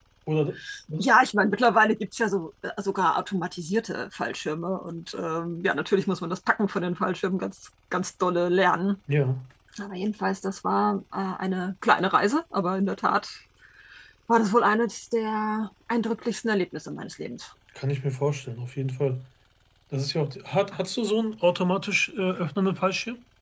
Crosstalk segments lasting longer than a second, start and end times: none

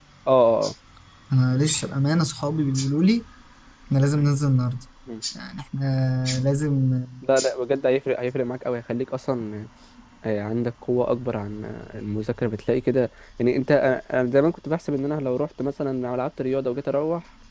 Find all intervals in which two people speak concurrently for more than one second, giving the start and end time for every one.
none

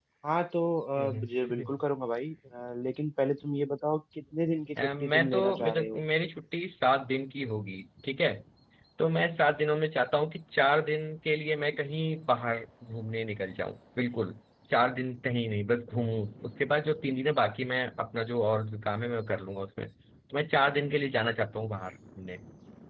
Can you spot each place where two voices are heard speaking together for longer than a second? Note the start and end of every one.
4.8-6.0

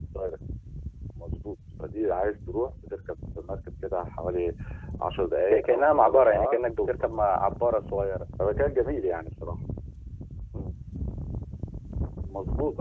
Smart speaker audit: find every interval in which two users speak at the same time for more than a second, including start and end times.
5.5-6.9

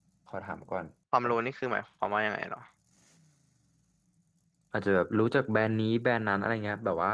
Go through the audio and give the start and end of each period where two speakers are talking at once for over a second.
none

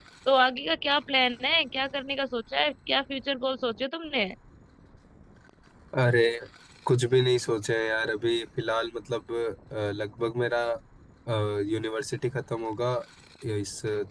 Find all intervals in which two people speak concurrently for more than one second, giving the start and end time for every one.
none

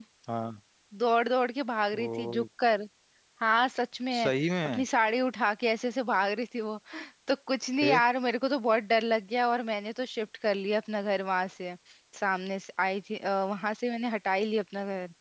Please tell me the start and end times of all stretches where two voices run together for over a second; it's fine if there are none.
none

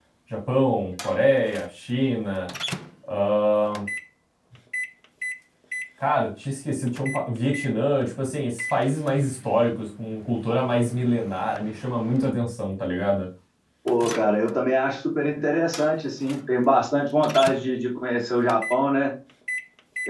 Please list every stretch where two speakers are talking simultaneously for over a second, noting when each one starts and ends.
none

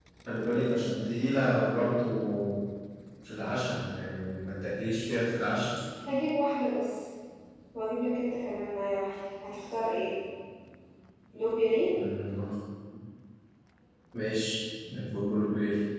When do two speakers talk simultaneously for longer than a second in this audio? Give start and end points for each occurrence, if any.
none

